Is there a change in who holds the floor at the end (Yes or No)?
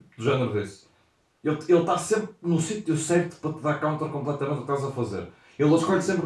No